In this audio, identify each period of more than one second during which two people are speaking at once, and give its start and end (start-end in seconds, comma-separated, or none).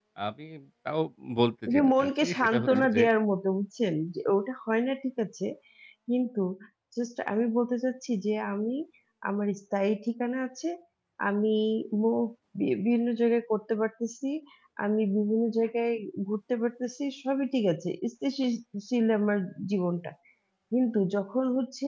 1.7-3.0